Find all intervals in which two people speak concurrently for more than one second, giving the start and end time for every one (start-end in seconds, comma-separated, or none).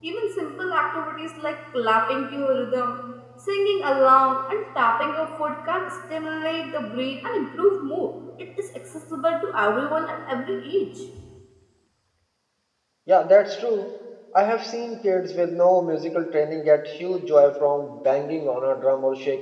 none